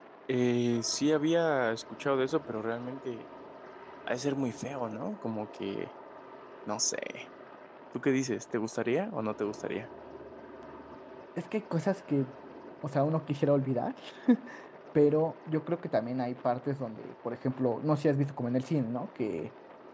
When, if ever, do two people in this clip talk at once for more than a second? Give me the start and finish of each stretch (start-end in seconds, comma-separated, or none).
none